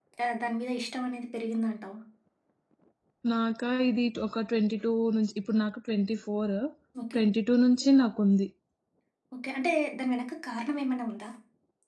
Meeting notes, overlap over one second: none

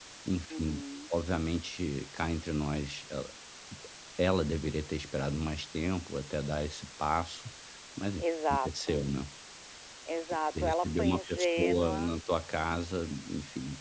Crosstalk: present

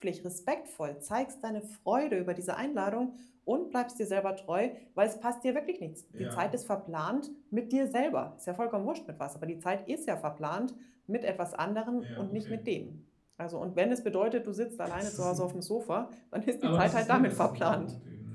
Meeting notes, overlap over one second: present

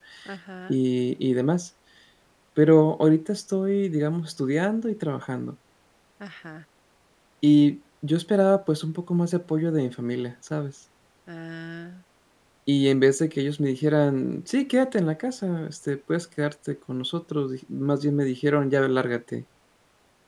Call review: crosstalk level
none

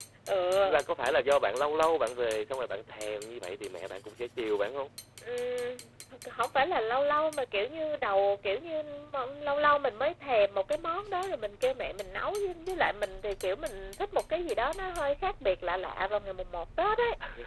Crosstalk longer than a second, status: none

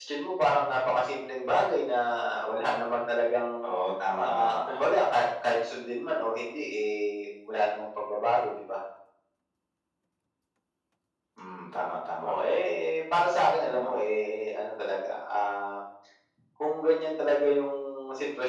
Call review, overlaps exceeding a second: none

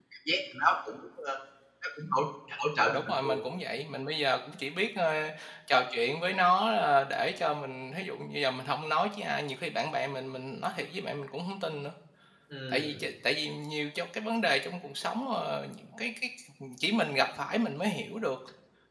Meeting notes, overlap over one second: none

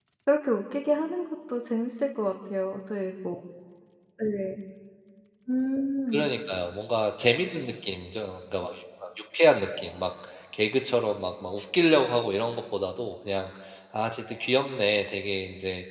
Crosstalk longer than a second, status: none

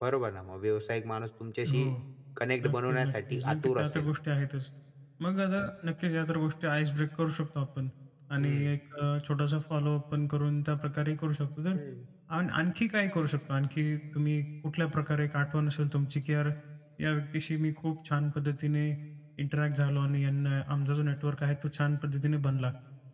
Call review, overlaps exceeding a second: present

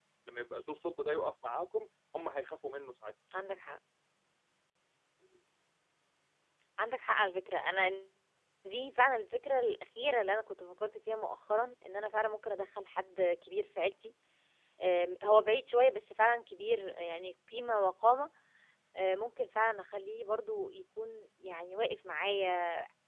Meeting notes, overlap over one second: none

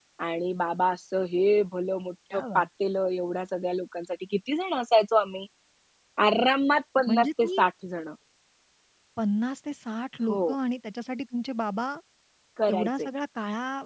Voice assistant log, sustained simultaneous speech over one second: none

